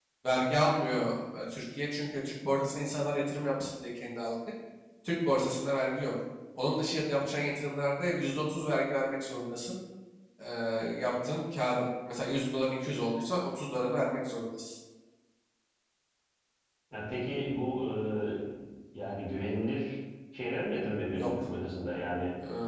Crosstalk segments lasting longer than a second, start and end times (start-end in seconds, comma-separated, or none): none